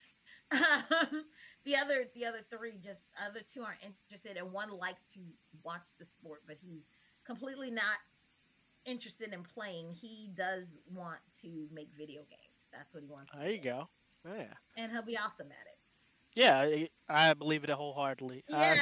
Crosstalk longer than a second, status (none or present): none